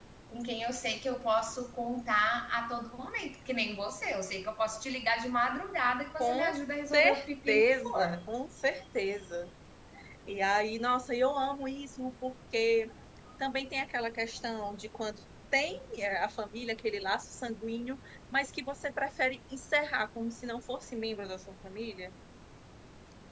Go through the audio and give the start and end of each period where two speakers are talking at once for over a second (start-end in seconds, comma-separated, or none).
6.9-8.2